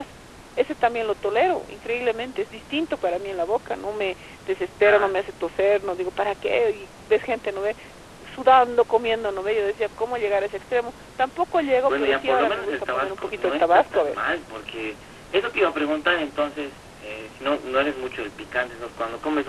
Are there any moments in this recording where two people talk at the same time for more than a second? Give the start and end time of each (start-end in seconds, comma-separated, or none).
11.9-14.2